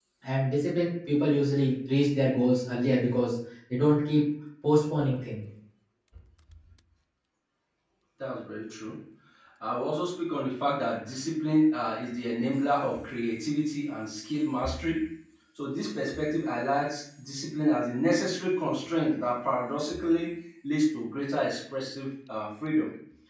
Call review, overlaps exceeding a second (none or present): none